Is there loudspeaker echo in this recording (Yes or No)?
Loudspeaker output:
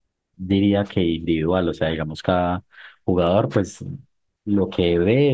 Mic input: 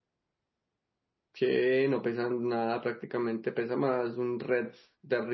No